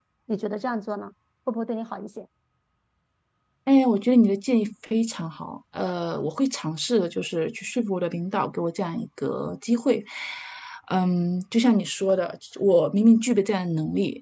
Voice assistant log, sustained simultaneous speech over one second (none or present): none